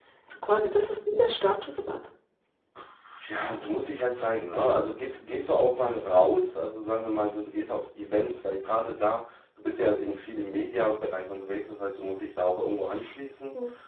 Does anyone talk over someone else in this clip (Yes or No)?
No